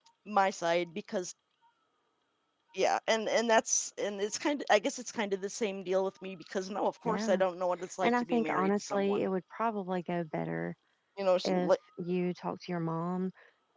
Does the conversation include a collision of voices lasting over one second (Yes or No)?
Yes